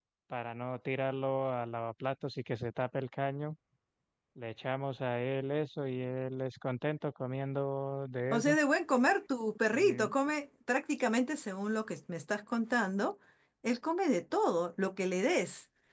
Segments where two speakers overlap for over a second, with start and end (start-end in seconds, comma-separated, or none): none